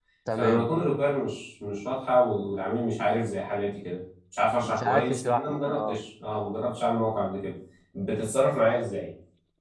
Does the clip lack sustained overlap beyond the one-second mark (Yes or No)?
No